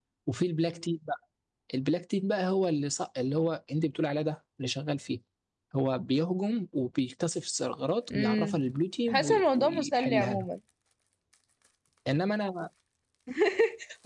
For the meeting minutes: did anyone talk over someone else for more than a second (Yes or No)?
Yes